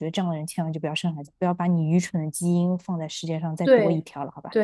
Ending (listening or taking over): taking over